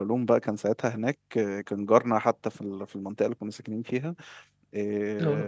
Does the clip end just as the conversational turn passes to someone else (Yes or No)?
No